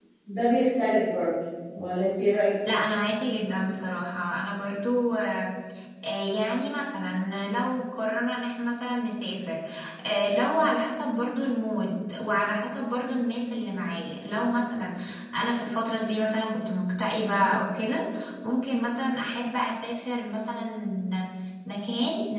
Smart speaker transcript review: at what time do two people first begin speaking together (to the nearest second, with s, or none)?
none